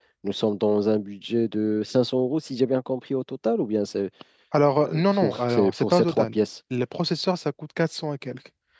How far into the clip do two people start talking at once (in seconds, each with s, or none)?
4.8 s